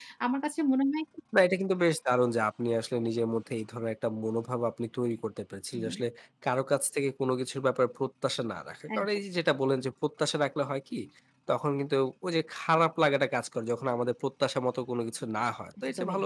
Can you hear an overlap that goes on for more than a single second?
No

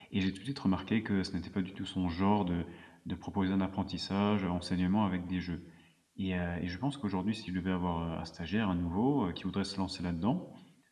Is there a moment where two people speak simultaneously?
No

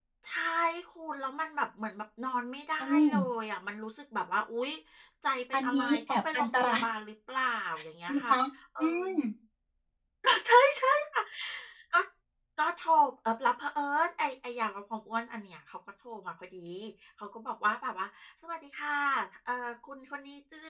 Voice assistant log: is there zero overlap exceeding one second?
No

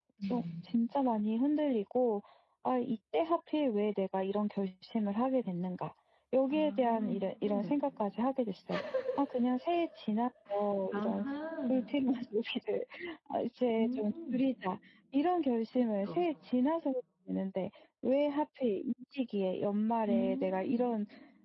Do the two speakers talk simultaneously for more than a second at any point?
Yes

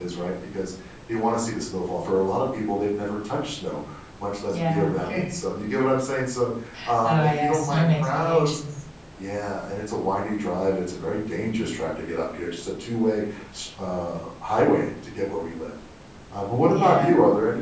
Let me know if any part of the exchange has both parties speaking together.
Yes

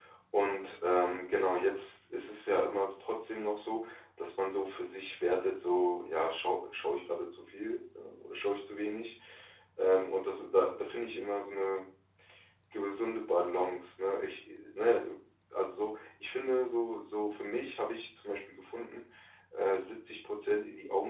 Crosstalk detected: No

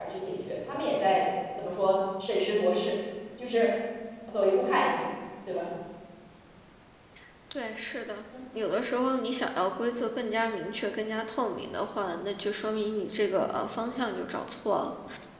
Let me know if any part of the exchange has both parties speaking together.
No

